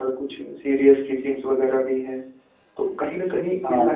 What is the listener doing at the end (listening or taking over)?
listening